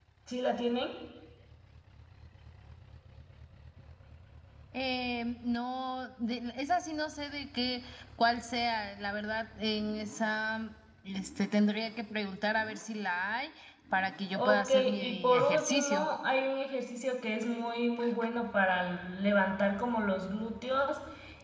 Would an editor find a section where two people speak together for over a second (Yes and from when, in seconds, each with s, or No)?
Yes, from 14.3 s